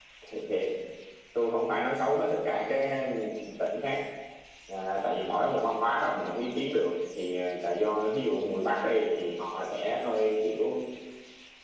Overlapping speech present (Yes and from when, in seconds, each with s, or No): No